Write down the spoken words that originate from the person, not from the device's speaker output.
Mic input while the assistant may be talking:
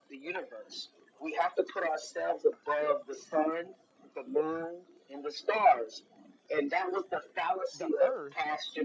the earth

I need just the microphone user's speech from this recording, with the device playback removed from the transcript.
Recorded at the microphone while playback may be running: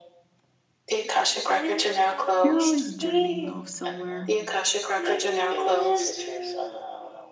You're always journeying off somewhere,

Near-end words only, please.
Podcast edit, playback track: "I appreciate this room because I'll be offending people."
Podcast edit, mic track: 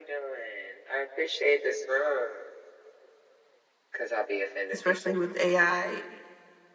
especially with AI.

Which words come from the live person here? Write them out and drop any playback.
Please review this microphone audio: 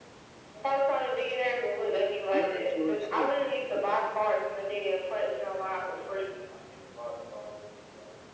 Learn to yourself, man.

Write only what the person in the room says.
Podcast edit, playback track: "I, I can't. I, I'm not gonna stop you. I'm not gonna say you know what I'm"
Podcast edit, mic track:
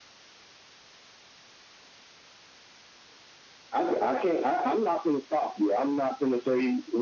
none

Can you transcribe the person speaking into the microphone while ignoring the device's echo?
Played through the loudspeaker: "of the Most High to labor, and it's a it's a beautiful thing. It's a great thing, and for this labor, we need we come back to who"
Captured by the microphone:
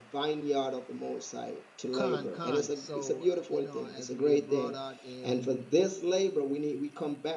Khan, Khan. So, uh, you know, as we have brought out in

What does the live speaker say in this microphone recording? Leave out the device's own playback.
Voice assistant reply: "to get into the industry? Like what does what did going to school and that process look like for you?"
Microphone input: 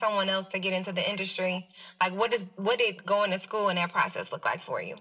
none

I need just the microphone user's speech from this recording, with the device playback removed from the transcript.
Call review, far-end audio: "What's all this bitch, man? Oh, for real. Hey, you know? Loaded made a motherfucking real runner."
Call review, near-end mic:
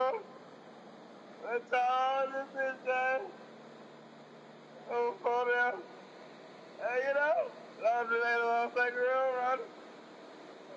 none

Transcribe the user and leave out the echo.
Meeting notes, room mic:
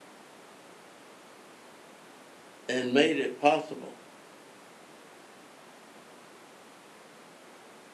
and made it possible.

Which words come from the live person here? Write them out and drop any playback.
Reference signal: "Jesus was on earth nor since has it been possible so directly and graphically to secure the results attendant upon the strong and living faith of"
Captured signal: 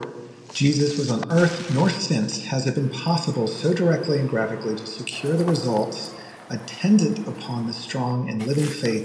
none

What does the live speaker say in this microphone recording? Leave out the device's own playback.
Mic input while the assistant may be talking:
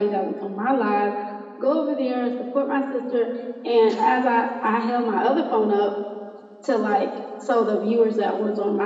none

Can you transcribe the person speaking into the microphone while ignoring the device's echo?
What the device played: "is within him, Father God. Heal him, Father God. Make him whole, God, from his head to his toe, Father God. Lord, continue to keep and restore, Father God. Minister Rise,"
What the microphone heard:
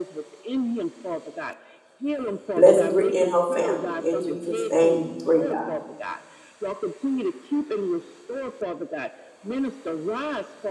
Bless Brittany and her family. In Jesus' name, we pray, God.

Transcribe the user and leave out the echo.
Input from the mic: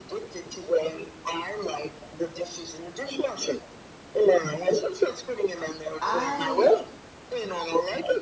i

